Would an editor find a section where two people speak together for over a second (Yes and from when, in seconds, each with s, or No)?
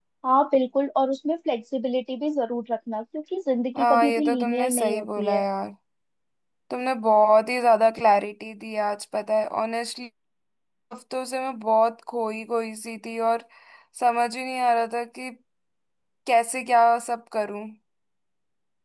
Yes, from 3.8 s